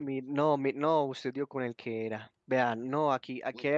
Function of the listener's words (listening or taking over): listening